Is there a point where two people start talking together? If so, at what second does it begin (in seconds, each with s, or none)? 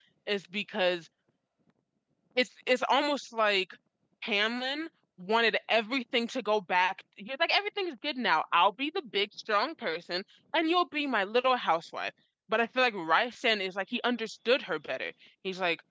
none